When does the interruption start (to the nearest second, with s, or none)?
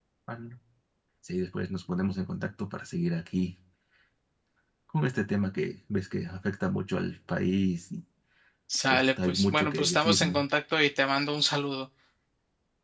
9 s